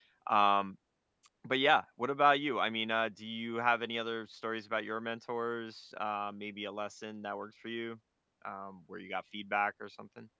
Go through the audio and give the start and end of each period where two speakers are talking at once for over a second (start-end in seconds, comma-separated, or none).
none